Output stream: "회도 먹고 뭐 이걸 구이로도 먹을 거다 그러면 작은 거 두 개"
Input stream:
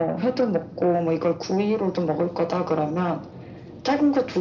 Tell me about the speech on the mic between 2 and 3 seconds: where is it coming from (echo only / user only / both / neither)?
echo only